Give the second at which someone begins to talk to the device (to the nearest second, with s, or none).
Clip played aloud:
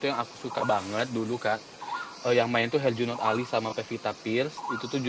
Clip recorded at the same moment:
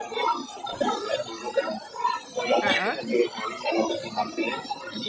3 s